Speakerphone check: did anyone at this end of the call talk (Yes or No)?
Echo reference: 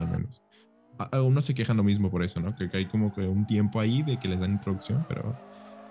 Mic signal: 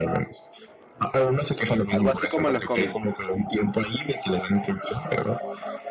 Yes